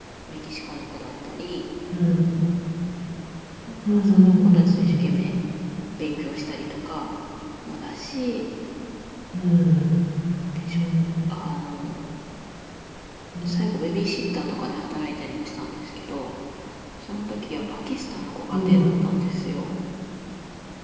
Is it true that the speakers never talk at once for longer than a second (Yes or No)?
No